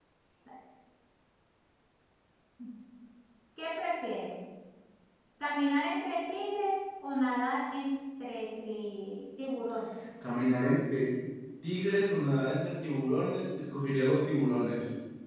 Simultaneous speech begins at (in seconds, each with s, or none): none